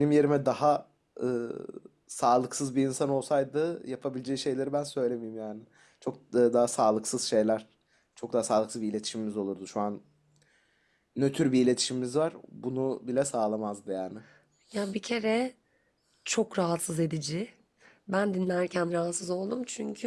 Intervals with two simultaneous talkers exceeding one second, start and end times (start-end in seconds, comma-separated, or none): none